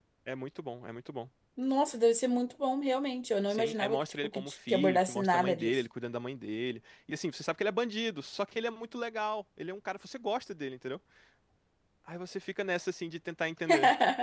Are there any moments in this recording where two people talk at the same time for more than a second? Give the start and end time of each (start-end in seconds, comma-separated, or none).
3.5-5.8